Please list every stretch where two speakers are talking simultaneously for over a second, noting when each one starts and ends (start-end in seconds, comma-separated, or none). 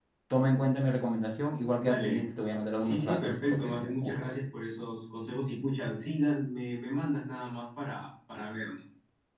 2.8-4.3